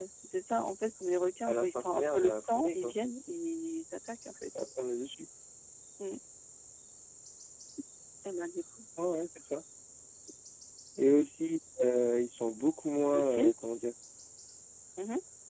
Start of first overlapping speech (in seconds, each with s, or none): 1.5 s